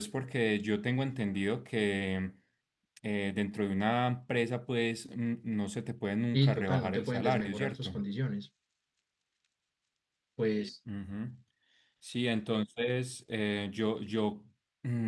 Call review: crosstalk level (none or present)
present